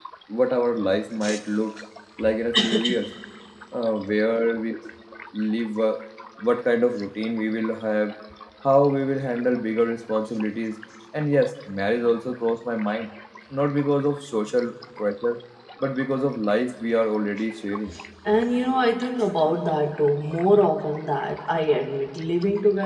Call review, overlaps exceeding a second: none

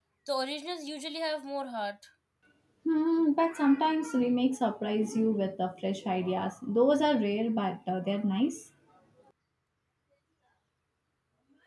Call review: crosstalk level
none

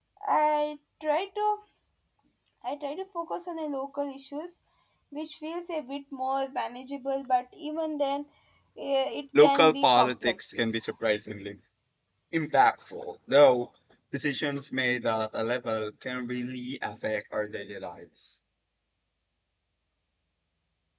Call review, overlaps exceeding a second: present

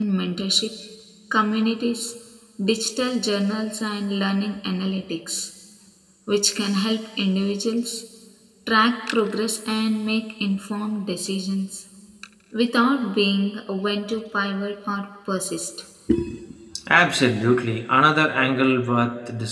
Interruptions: none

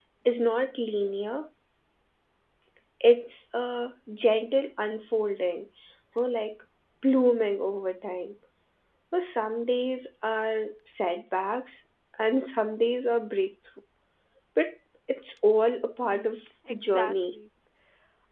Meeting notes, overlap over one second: present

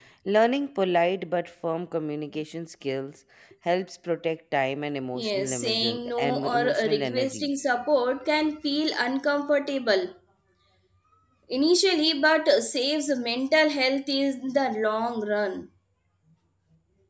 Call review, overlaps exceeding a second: present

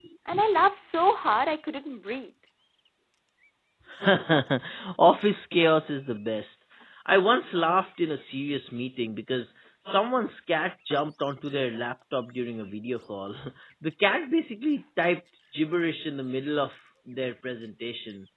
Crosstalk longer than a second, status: none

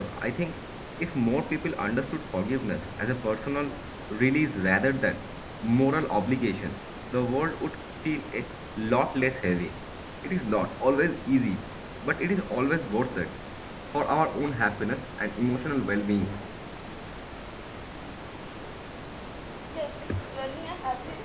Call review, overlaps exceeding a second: none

